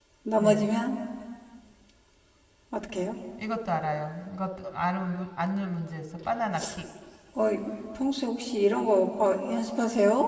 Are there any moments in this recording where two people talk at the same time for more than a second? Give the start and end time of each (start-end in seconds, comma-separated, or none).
none